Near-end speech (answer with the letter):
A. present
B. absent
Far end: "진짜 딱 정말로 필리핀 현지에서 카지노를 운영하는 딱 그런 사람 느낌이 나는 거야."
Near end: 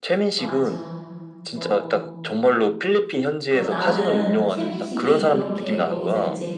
A